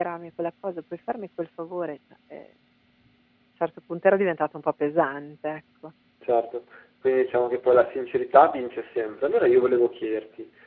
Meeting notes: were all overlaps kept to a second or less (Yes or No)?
Yes